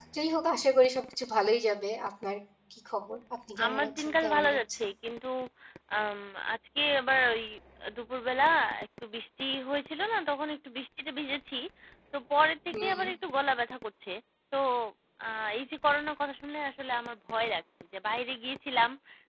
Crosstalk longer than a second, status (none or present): present